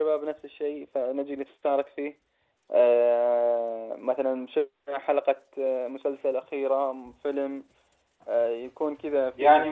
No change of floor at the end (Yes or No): No